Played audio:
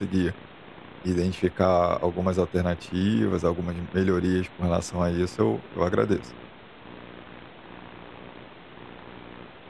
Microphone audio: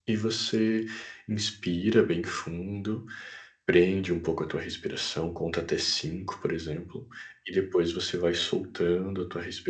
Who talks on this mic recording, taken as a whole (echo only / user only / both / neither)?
user only